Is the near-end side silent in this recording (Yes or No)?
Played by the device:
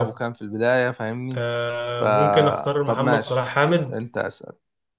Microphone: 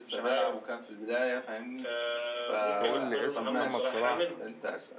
No